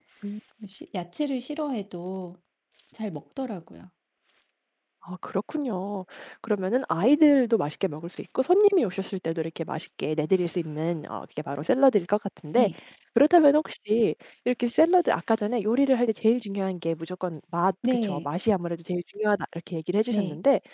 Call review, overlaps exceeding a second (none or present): none